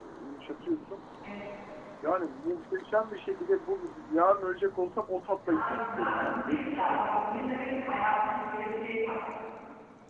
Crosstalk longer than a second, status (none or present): present